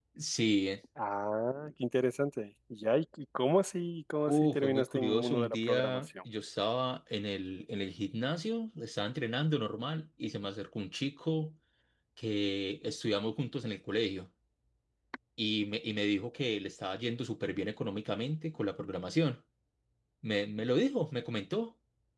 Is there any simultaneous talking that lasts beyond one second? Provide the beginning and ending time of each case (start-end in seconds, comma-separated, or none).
4.3-6.1